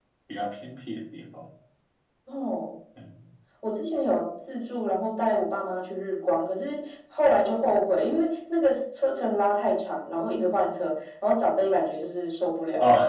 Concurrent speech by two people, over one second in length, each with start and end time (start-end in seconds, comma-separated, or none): none